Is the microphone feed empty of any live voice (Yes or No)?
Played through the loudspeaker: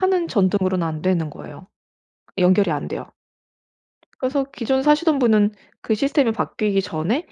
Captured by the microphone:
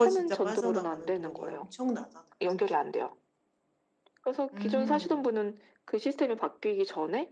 No